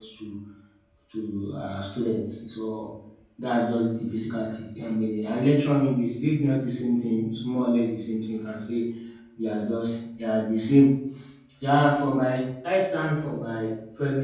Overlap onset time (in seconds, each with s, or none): none